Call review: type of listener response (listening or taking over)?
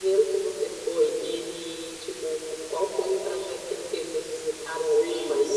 taking over